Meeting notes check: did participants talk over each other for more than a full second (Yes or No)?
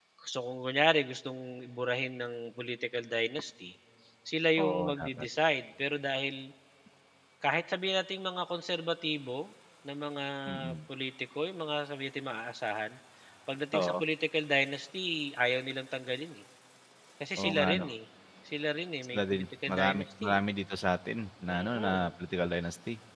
Yes